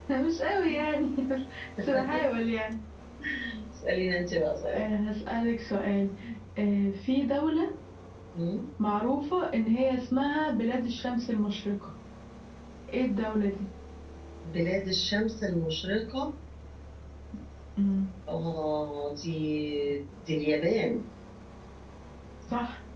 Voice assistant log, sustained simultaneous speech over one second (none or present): none